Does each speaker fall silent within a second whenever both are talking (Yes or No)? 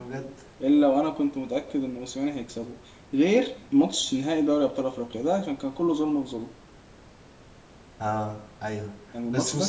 Yes